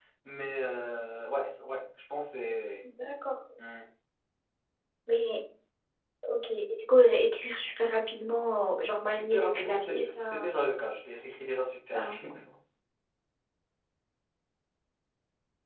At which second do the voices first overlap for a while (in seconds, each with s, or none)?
9.1 s